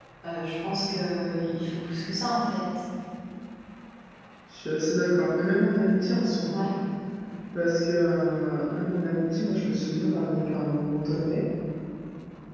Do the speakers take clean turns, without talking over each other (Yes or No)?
Yes